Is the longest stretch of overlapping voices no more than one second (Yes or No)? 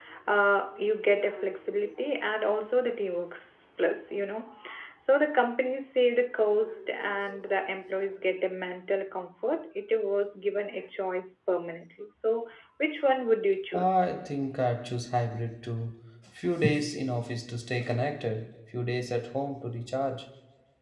Yes